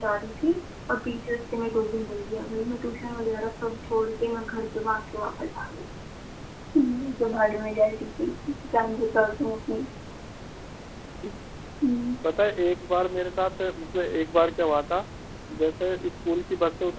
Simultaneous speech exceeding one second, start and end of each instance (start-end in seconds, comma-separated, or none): none